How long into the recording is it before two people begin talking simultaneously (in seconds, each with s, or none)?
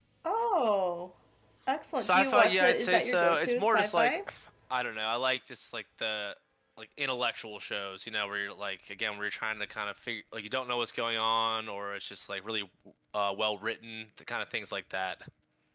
2.0 s